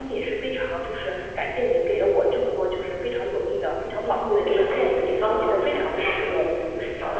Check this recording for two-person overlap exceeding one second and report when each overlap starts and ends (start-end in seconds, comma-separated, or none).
4.0-6.5